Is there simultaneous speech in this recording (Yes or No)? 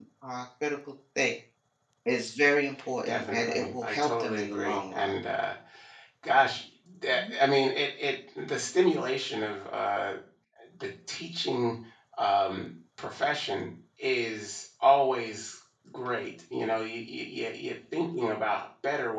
Yes